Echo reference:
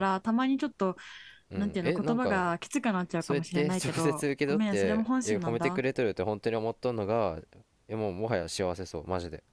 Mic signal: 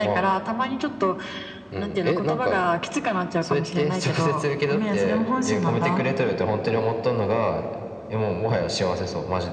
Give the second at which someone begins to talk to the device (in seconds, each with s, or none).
none